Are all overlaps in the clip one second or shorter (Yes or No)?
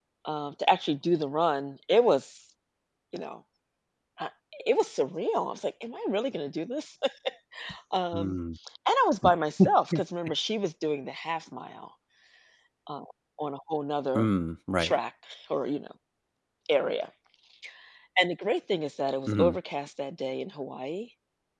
Yes